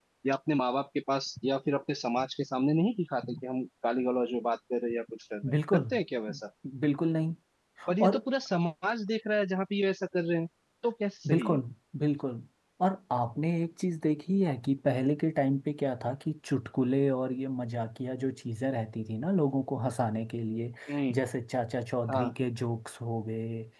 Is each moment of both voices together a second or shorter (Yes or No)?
Yes